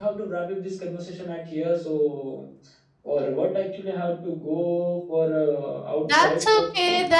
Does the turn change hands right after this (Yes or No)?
Yes